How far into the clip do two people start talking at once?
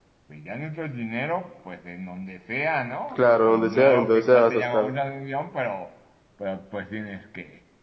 3.1 s

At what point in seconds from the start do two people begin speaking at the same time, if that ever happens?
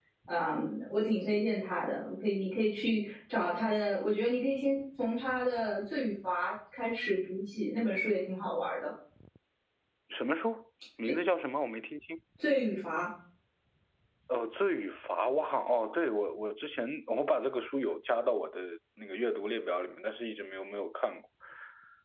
none

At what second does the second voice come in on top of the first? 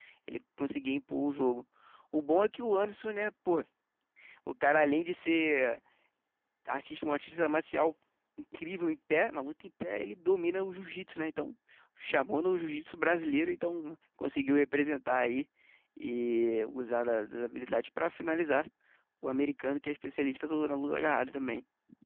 none

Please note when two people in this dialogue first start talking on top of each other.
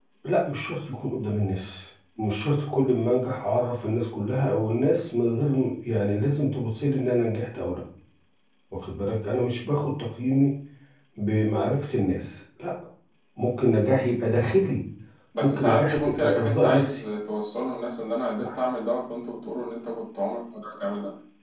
15.4 s

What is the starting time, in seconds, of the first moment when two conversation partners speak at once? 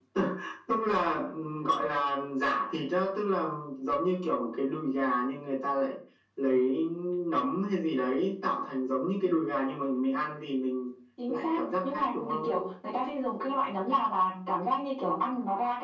11.2 s

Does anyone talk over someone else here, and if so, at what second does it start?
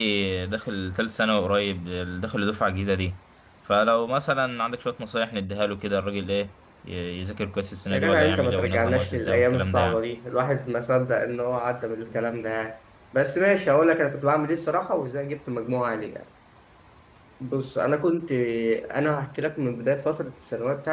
7.9 s

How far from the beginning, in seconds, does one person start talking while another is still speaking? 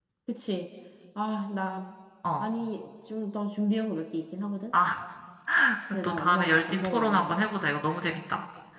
6.0 s

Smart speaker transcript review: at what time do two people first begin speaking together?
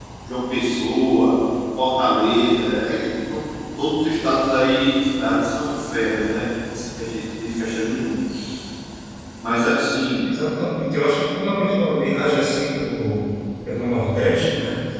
none

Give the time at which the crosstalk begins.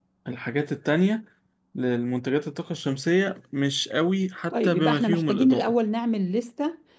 4.5 s

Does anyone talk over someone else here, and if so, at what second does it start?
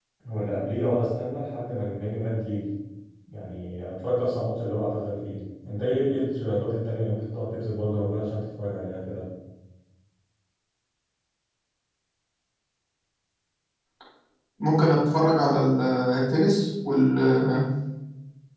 none

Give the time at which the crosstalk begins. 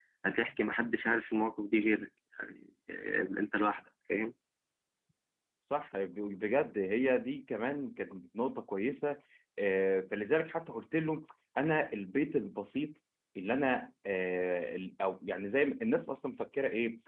none

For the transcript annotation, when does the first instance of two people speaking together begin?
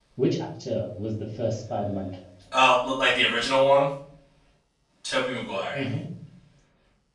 none

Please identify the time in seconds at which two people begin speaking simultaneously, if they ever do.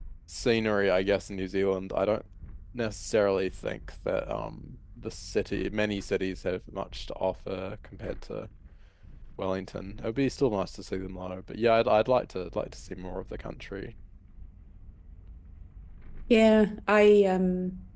none

